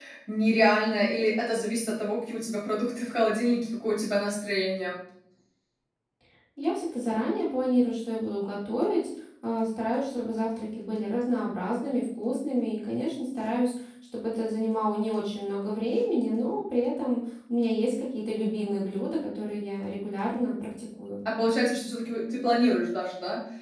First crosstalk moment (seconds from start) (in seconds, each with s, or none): none